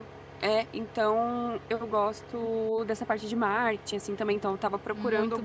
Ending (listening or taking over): listening